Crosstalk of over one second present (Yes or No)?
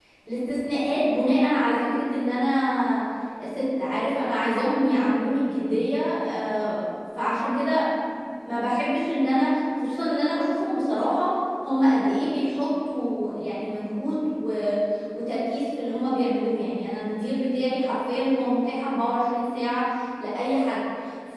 No